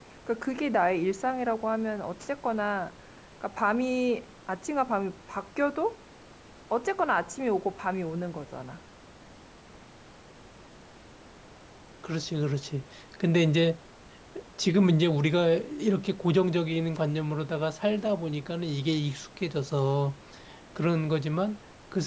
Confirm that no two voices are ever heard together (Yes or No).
Yes